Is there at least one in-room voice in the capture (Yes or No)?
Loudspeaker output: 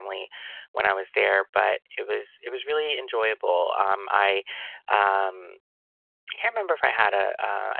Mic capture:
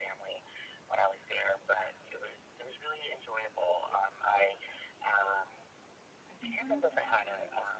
Yes